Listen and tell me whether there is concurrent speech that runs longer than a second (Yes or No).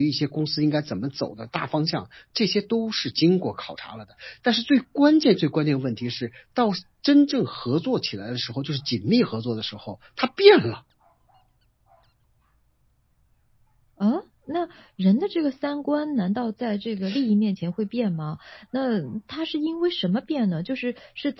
No